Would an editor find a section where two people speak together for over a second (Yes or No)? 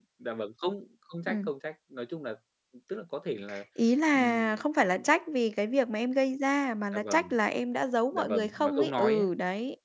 Yes